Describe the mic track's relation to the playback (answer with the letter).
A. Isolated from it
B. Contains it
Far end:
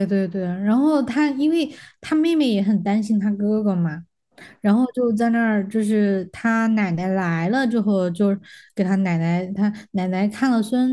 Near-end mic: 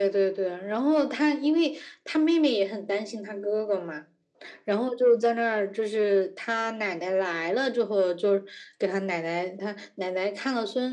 B